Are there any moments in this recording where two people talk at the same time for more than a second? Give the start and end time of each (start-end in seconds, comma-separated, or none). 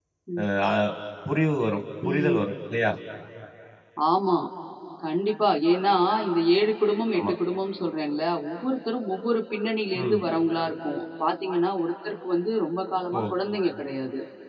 none